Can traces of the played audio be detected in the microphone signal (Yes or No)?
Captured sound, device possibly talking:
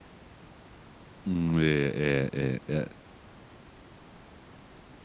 No